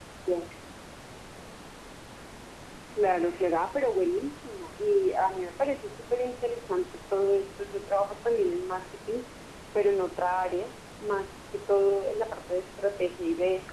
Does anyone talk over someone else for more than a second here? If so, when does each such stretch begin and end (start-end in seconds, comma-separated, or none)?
none